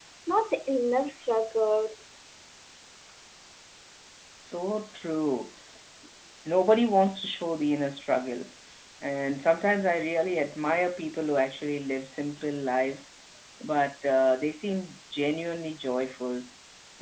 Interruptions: none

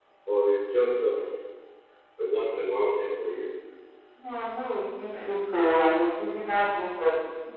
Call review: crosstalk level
none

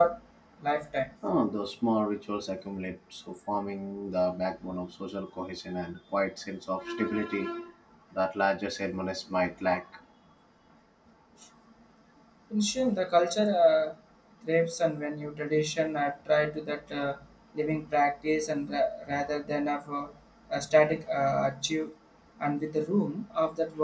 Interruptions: none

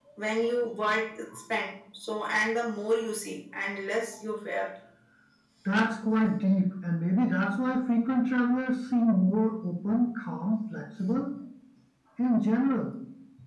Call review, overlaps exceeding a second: none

